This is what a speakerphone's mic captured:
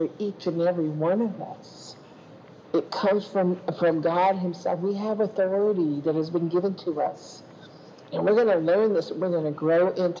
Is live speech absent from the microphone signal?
Yes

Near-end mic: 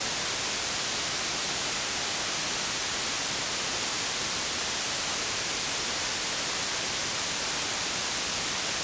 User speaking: No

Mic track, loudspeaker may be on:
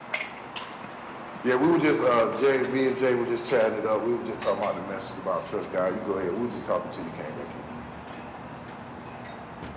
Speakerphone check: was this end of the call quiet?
No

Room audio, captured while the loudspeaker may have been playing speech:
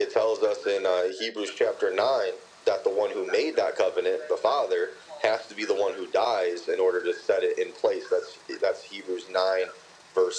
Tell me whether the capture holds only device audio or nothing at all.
Yes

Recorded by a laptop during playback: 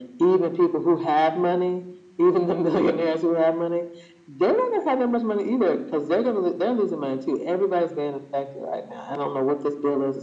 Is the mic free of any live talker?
Yes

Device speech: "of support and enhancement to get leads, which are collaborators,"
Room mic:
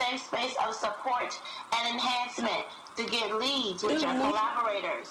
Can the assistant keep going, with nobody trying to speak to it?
No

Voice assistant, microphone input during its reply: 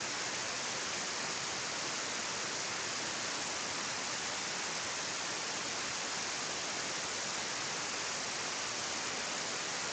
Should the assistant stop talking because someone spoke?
No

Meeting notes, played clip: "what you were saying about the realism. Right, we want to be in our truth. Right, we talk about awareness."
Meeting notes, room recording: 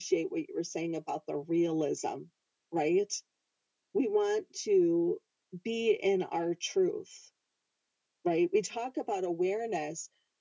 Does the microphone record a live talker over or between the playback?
No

